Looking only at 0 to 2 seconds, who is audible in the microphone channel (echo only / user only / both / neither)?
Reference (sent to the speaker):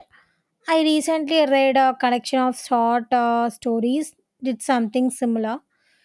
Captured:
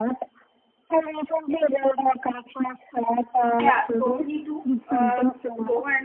echo only